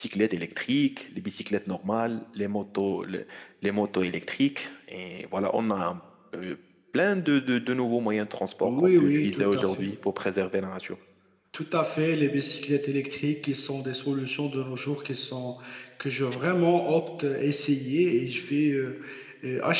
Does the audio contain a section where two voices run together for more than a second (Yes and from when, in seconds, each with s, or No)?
Yes, from 8.6 s